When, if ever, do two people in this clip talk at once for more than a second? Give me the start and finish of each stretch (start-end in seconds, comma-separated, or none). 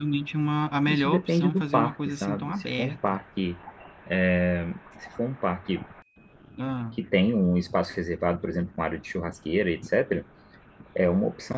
0.8-3.2